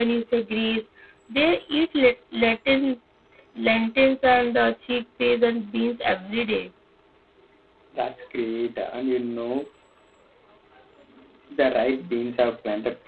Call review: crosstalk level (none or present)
none